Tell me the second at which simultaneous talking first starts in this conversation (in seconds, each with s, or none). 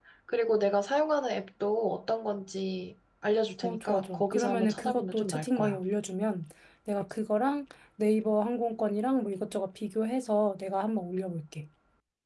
3.6 s